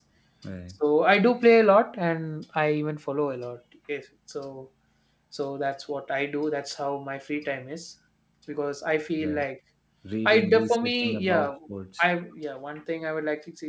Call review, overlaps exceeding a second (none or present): present